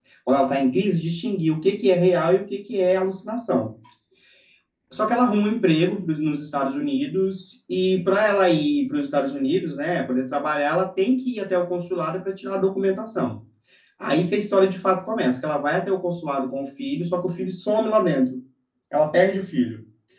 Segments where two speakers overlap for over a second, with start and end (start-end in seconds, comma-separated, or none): none